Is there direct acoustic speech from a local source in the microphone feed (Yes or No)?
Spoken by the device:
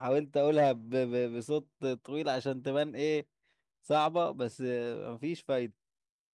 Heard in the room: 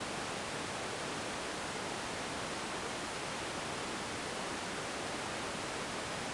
No